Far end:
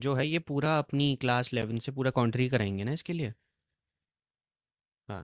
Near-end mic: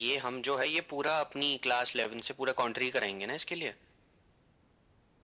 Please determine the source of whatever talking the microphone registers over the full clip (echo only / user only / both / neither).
echo only